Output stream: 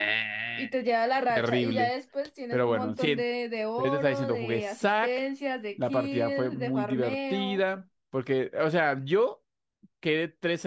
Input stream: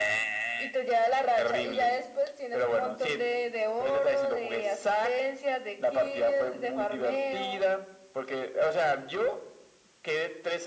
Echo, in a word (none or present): present